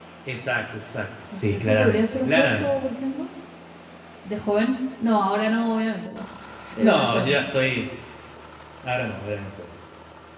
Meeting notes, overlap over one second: present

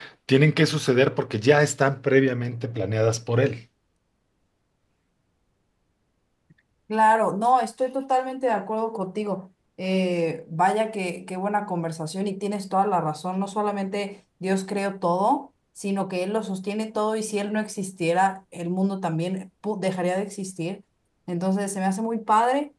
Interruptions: none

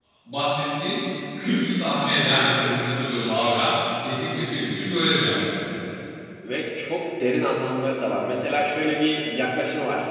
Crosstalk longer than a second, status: none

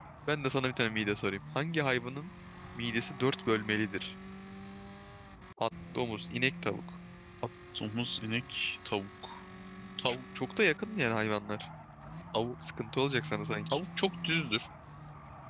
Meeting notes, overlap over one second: none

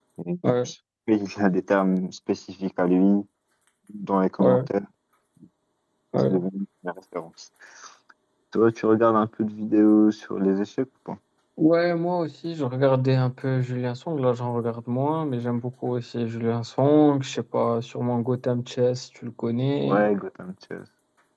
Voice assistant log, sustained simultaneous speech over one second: none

